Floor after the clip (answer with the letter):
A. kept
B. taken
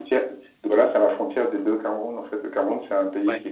A